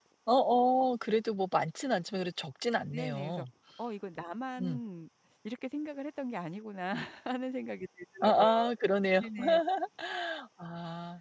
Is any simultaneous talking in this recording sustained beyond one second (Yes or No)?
No